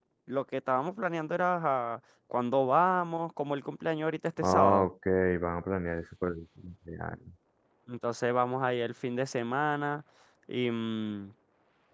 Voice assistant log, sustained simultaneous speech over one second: none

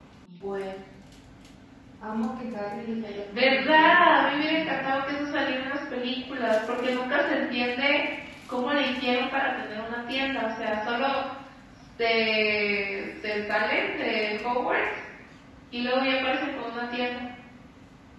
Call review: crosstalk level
present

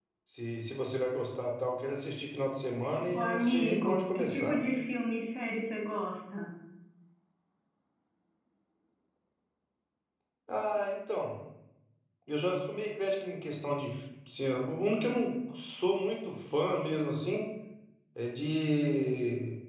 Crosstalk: present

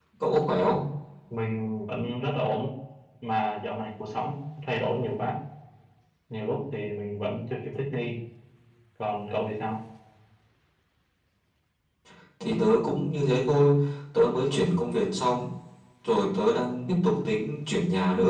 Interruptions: none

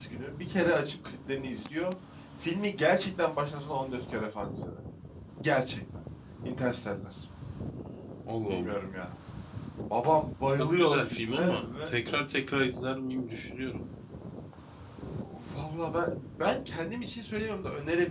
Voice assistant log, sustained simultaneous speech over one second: present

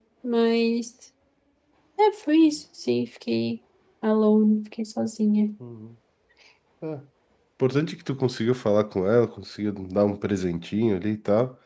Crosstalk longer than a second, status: none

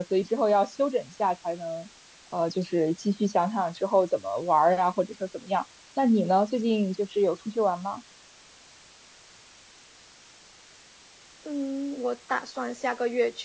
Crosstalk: none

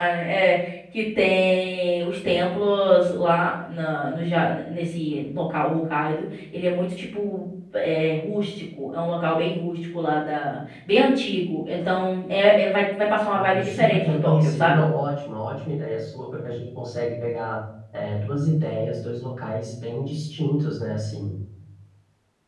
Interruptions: present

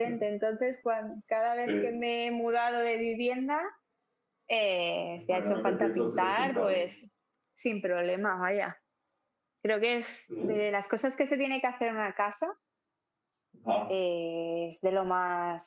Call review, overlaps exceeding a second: present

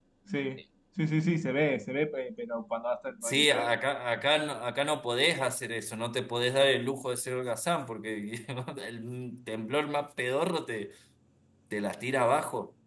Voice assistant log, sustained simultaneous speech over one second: none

